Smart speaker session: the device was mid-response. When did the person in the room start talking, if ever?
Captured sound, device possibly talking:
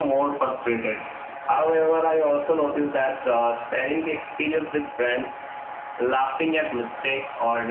none

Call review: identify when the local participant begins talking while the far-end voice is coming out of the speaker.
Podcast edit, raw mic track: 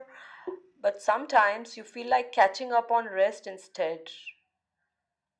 none

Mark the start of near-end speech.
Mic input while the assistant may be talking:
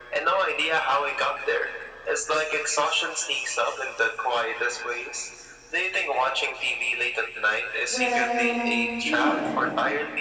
7.8 s

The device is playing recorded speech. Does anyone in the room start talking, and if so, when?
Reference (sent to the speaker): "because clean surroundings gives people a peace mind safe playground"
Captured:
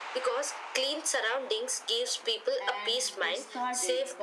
2.6 s

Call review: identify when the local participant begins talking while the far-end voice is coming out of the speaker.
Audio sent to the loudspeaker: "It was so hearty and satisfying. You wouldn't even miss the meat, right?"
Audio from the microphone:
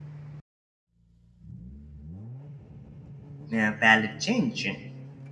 3.6 s

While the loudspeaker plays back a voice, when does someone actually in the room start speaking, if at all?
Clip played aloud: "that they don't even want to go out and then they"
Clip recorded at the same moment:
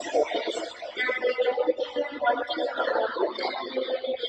none

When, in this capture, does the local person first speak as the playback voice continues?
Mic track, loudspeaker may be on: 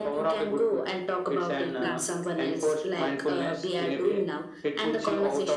1.8 s

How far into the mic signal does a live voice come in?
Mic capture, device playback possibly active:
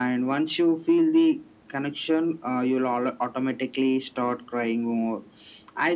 none

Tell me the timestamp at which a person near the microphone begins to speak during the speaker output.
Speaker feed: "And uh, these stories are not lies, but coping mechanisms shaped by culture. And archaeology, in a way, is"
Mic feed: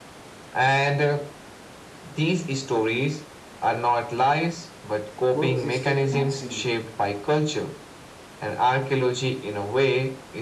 5.3 s

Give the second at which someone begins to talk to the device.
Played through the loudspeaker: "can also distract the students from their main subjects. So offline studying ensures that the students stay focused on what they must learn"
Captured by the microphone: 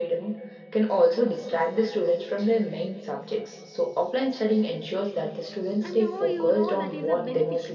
5.8 s

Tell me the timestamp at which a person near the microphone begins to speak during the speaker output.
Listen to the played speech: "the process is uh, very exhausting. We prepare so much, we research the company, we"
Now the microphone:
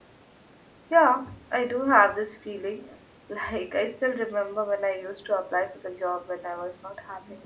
0.9 s

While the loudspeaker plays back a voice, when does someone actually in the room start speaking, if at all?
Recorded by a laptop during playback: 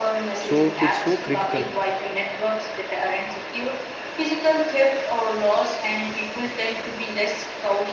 0.4 s

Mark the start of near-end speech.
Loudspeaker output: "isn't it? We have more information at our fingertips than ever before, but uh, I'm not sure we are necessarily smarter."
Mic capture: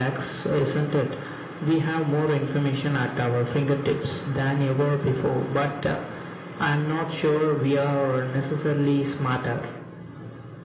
none

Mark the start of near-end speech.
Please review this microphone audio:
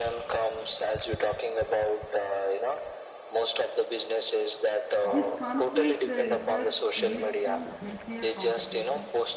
5.0 s

